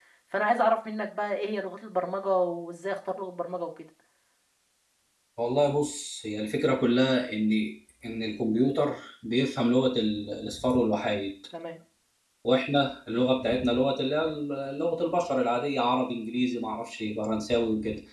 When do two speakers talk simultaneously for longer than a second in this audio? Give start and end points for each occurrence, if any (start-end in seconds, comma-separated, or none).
none